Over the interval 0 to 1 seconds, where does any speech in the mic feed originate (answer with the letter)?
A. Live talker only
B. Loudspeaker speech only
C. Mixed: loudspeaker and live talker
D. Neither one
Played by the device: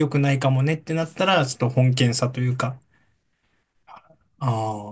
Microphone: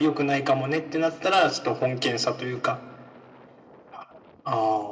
B